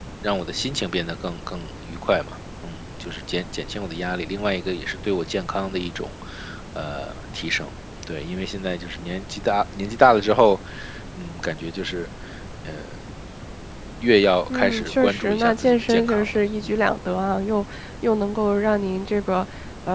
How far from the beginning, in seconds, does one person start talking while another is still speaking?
14.5 s

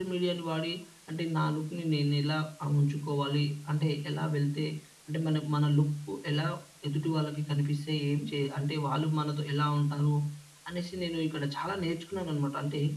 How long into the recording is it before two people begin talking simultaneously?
none

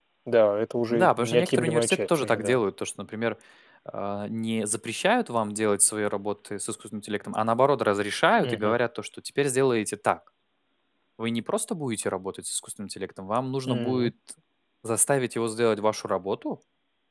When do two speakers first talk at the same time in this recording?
0.9 s

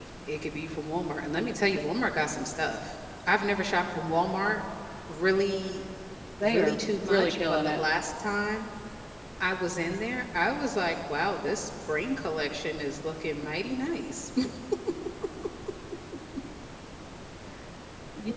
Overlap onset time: 6.4 s

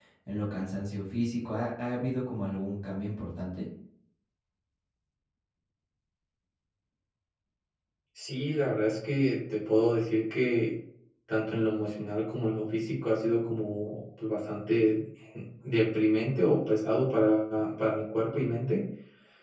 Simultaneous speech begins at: none

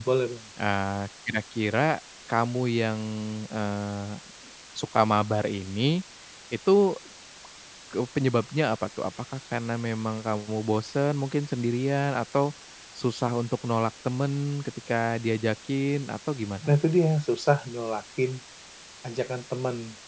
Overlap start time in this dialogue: none

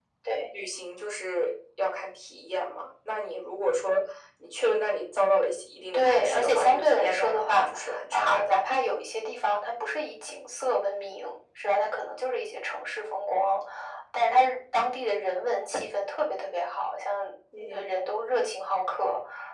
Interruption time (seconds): 5.9 s

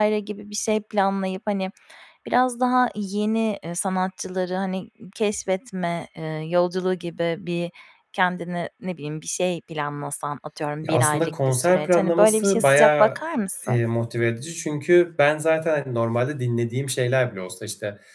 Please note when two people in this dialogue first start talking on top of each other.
10.8 s

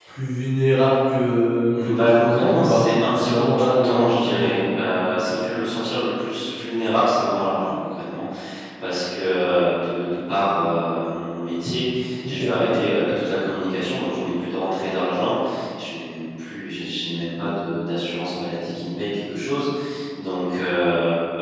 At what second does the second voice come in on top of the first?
1.7 s

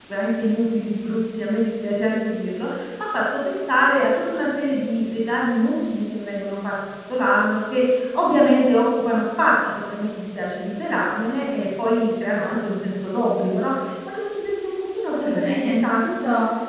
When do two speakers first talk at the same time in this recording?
15.1 s

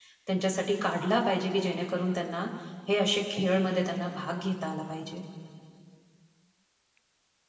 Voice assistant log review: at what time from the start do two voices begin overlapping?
none

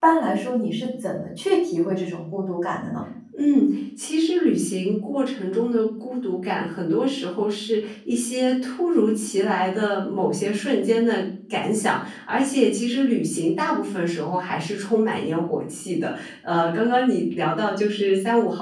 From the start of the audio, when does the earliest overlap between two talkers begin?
none

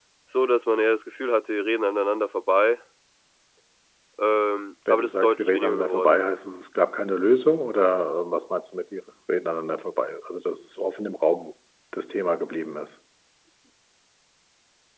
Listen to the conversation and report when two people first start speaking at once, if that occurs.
4.9 s

